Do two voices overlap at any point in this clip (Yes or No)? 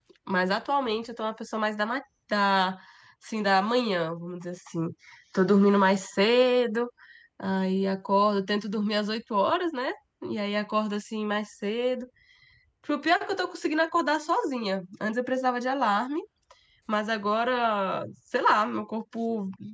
No